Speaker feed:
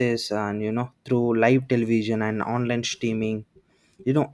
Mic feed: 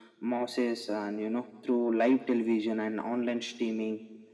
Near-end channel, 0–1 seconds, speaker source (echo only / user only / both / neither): echo only